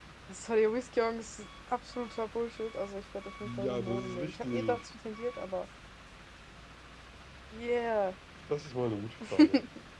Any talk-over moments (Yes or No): Yes